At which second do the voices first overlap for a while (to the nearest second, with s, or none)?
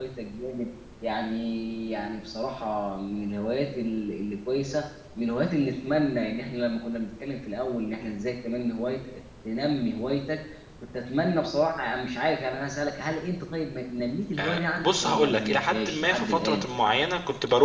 14 s